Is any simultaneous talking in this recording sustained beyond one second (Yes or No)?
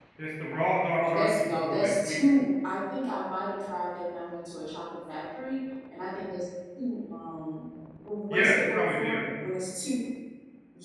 Yes